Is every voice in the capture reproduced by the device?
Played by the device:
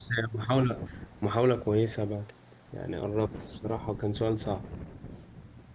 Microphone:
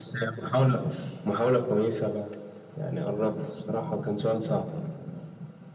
No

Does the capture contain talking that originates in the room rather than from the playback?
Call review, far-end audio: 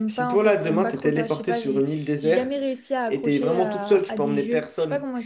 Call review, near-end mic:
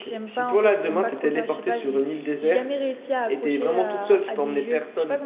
No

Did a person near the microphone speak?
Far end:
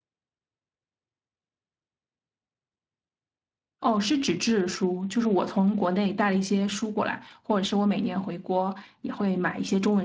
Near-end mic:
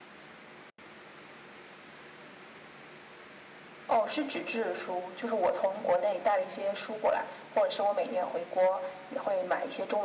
No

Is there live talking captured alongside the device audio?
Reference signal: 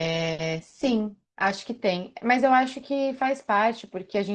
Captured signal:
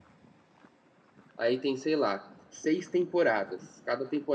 Yes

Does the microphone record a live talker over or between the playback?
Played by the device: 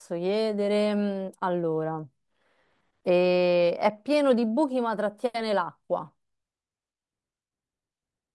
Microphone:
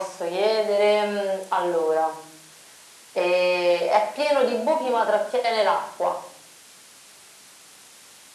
No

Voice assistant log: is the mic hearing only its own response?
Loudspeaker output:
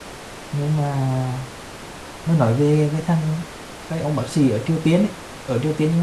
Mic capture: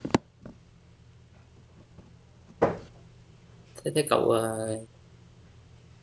No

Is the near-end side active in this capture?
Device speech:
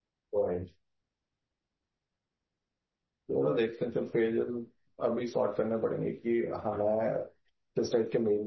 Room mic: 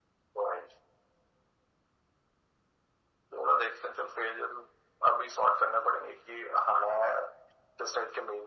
No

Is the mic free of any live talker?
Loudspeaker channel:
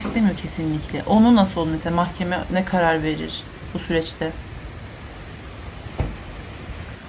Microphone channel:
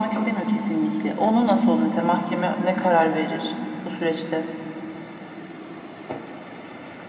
Yes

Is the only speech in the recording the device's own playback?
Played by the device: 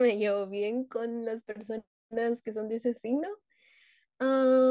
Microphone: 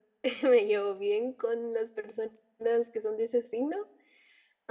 Yes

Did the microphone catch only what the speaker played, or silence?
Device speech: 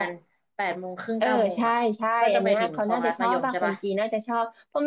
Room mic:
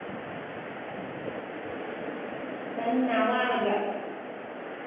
No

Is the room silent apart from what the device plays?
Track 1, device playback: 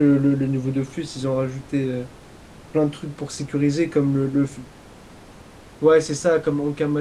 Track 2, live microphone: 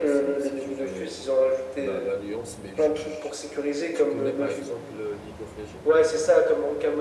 No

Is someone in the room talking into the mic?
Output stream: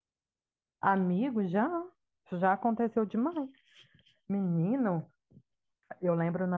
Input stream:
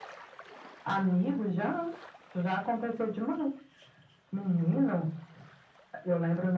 No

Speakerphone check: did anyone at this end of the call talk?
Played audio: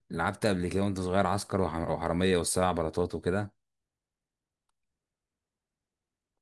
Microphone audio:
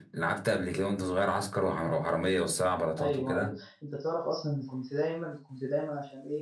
Yes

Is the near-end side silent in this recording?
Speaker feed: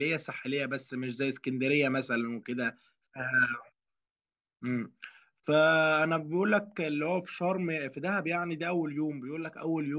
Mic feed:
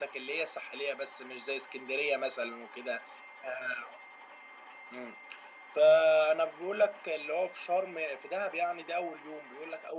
Yes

